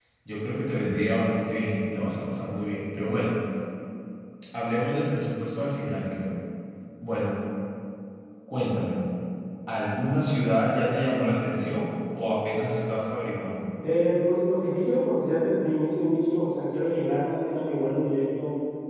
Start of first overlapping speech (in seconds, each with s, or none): none